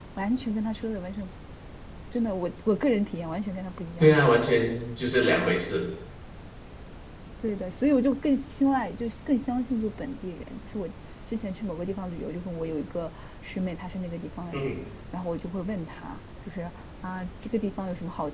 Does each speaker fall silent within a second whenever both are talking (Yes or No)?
Yes